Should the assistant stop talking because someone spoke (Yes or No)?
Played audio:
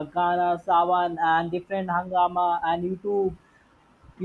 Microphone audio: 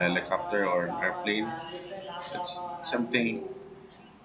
Yes